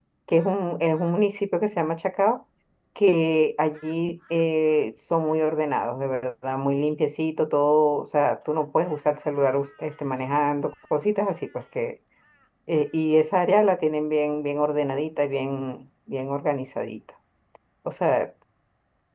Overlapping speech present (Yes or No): No